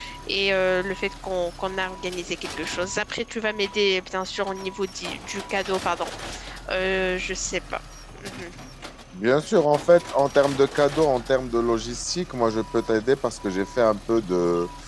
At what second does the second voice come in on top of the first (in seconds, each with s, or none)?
none